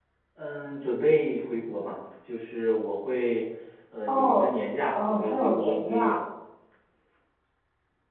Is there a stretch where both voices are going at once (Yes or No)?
Yes